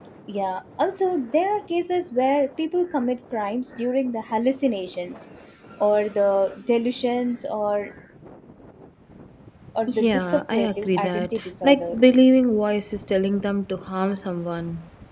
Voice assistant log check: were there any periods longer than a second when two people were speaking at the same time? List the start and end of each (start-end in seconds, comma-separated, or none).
9.9-12.0